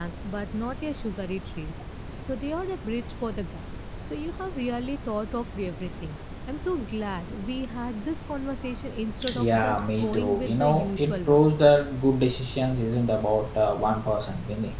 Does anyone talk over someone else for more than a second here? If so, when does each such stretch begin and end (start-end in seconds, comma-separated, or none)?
9.4-11.5